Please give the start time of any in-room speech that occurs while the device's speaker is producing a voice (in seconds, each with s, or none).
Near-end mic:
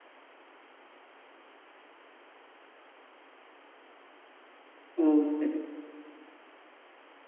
5.0 s